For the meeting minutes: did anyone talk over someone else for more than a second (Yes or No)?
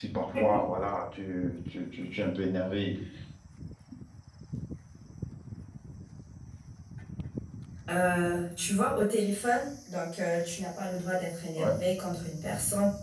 No